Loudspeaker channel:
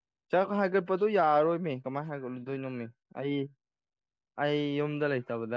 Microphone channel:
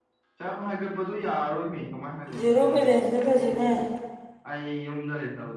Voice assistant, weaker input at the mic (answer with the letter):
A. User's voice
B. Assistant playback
B